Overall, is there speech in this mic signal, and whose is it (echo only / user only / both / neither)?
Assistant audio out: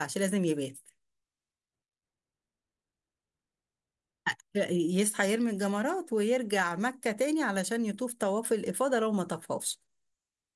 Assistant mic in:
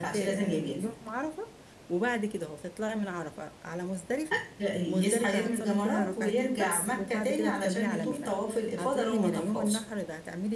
both